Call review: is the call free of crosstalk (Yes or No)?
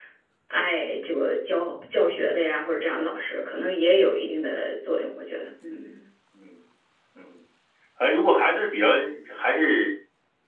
Yes